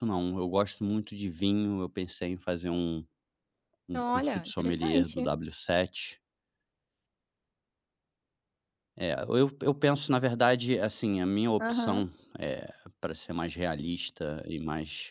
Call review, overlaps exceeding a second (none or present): present